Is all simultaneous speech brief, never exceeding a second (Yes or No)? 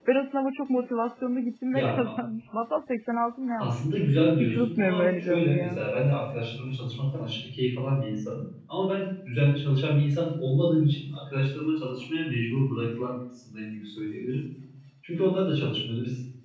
No